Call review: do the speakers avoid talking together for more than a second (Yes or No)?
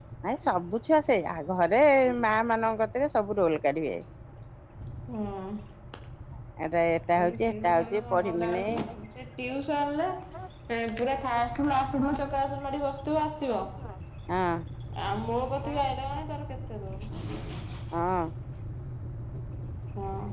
No